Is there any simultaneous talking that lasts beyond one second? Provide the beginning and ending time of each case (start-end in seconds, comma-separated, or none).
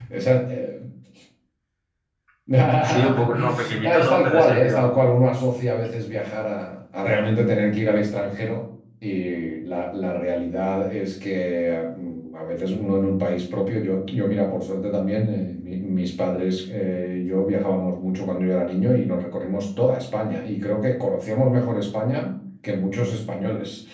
2.8-4.9